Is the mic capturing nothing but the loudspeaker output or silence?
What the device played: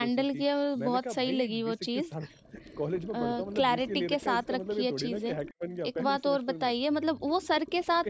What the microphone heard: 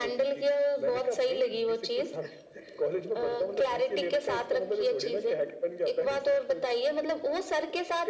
Yes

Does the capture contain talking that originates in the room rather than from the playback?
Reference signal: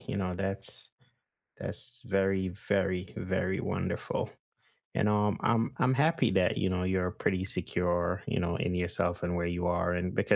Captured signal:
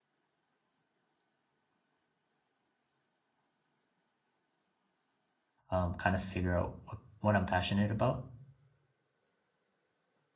Yes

